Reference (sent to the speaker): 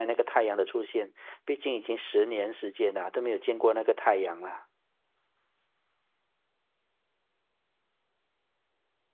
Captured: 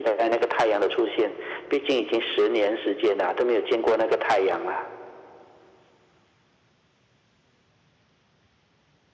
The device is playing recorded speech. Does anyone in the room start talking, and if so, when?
none

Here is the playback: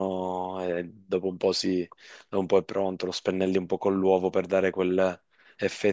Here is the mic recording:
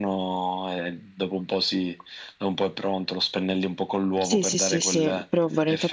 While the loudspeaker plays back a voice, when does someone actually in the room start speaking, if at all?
4 s

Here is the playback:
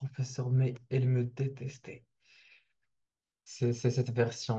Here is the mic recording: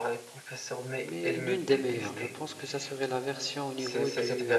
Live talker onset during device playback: 1 s

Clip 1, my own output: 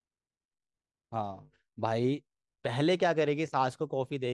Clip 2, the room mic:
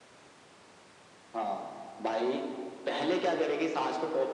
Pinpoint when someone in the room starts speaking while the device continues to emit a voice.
none

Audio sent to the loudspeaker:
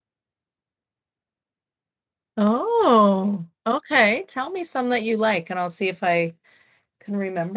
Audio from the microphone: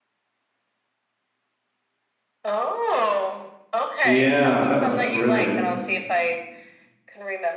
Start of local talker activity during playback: 4 s

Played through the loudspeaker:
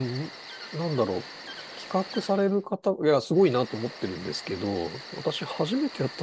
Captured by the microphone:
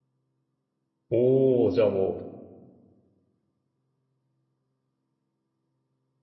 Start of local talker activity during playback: 1 s

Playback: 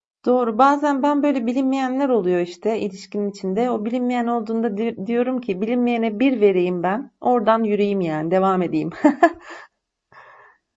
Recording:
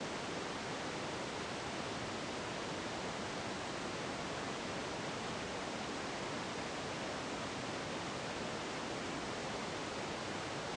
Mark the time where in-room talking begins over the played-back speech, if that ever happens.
none

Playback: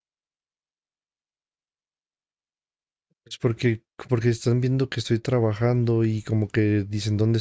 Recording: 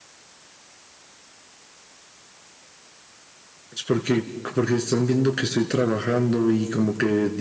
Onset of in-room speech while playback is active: none

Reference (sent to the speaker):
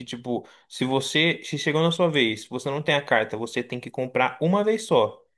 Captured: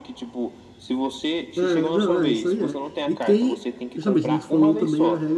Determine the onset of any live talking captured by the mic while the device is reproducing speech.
2 s

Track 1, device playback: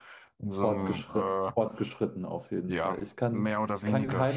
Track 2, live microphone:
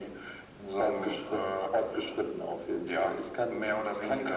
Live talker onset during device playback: none

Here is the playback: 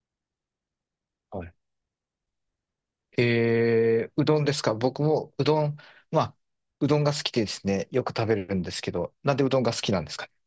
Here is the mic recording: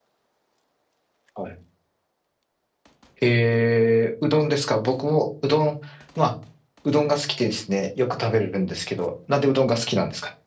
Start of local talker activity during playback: none

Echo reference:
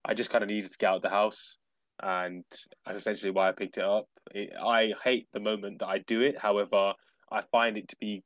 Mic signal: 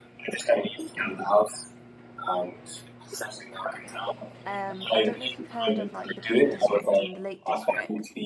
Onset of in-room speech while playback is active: 4 s

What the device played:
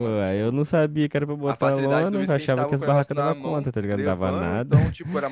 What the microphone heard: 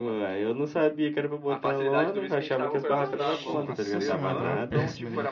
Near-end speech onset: 3 s

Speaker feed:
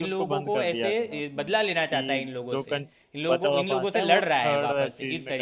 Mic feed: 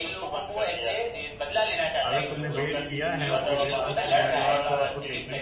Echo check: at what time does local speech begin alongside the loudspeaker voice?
2 s

